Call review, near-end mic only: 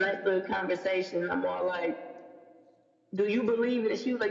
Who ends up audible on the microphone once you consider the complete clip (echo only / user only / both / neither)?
echo only